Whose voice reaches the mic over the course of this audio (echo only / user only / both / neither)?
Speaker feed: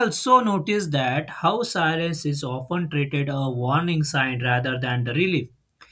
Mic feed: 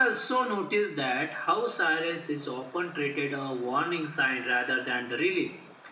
echo only